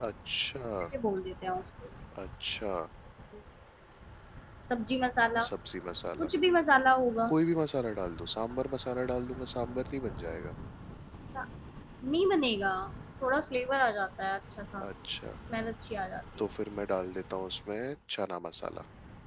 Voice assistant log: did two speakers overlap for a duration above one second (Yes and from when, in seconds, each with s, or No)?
No